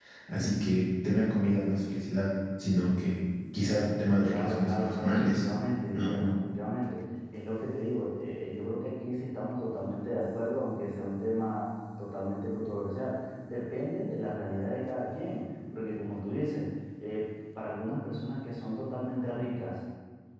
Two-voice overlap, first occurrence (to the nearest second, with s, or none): 4 s